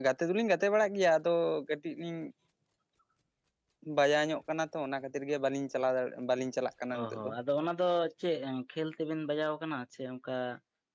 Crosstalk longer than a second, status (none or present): none